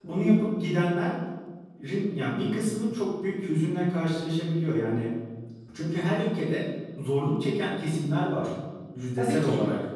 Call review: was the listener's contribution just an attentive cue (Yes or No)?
No